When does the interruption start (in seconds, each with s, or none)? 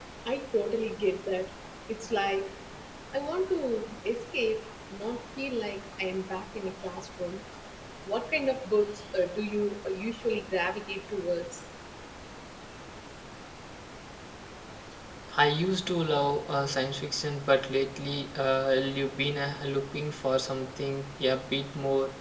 none